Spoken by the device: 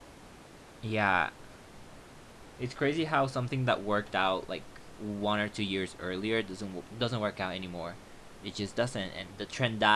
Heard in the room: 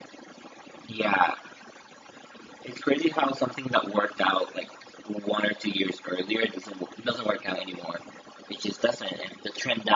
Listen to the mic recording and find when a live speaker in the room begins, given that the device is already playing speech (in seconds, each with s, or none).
none